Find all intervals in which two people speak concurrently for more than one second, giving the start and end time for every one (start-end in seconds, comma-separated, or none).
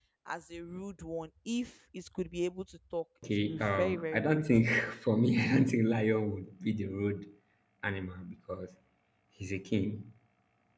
3.4-4.6